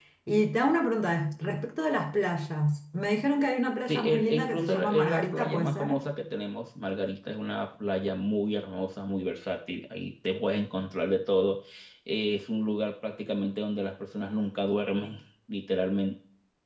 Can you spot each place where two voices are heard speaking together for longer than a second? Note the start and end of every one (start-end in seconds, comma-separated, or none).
3.9-6.0